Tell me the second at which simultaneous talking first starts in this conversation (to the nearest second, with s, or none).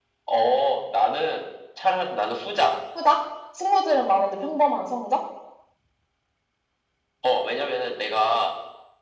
none